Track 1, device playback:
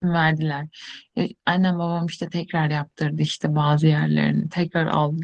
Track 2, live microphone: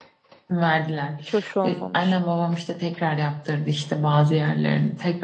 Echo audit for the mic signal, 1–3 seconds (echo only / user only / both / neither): both